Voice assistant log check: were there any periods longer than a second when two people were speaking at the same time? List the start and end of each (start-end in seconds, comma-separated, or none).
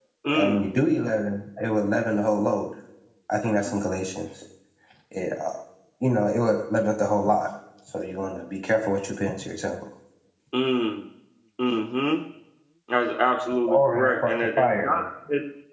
13.7-15.0